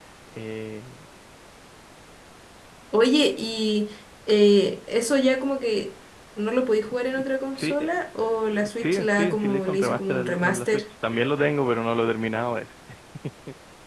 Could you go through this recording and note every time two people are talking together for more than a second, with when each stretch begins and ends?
8.4-10.8

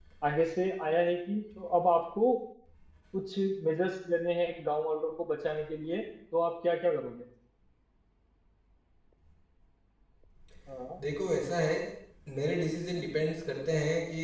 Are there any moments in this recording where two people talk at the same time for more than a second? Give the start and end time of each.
none

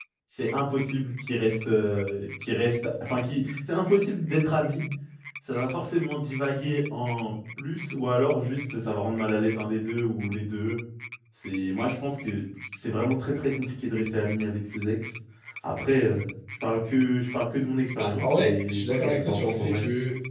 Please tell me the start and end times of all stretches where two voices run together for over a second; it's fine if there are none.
17.9-19.8

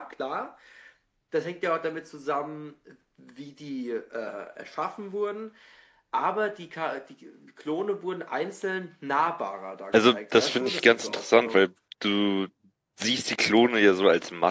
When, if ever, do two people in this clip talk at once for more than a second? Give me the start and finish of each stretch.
9.9-11.6

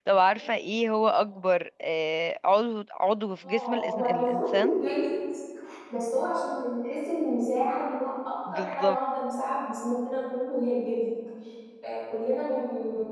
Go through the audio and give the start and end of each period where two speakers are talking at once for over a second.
3.4-4.7

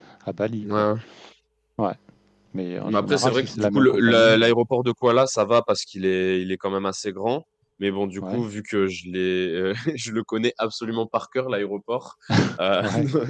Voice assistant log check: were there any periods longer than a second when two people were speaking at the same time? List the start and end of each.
2.8-4.5

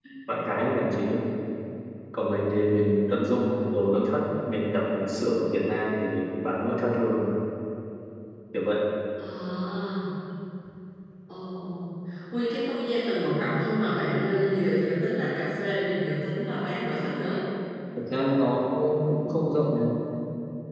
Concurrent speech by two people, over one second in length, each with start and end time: none

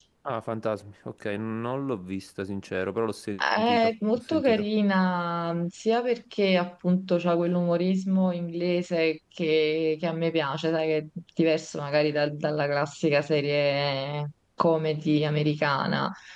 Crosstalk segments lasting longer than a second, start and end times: 3.4-4.7

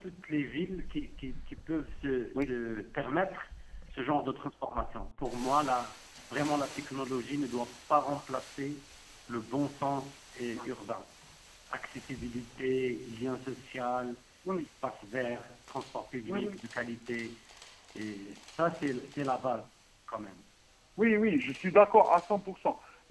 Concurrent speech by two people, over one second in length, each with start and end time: none

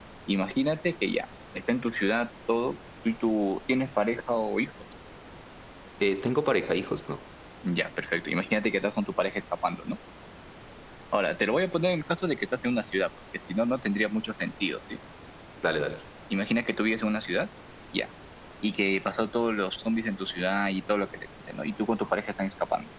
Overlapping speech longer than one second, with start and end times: none

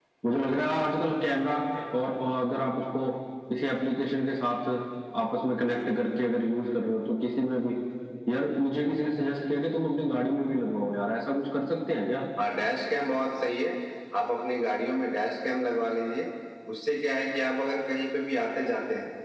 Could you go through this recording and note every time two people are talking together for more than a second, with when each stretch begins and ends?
none

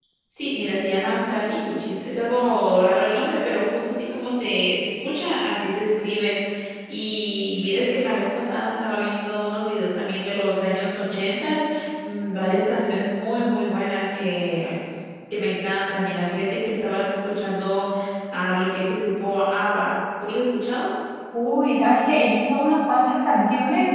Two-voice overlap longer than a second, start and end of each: none

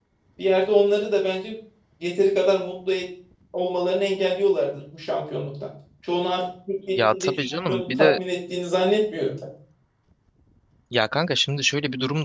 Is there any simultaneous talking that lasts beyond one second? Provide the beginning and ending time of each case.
7.0-8.2

